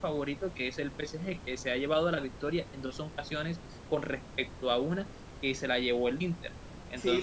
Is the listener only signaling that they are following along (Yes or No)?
No